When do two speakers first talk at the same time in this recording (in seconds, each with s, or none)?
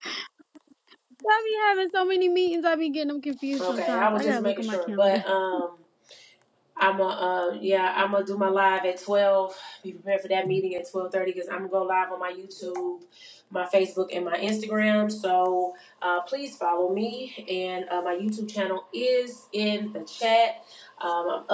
3.5 s